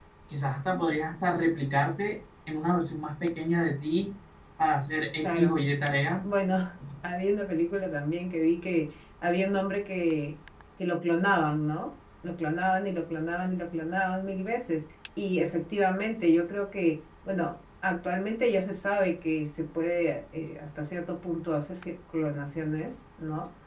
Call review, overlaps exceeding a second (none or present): none